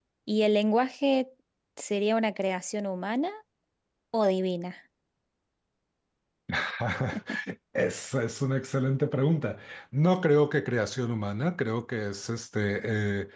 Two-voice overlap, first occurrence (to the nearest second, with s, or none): none